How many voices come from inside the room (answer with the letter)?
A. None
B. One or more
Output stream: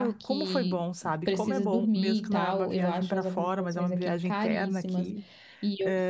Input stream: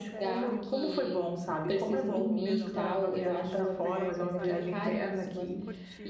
B